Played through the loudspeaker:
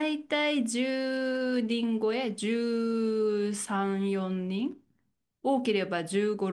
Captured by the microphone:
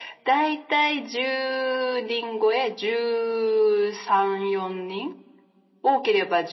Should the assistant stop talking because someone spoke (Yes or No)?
No